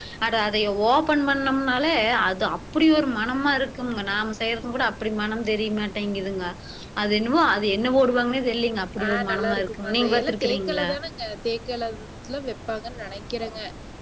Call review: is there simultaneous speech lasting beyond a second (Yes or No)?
Yes